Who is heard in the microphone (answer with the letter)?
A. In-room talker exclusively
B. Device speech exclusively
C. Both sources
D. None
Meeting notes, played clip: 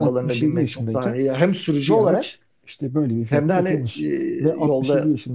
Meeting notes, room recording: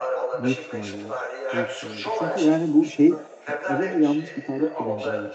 C